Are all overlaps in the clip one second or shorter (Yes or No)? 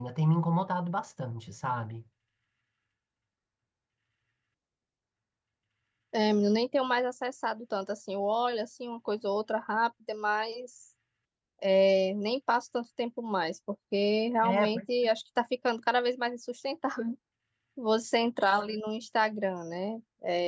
Yes